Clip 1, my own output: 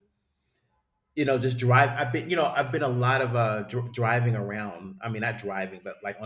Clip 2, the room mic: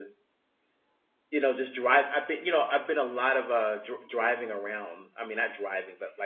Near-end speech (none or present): none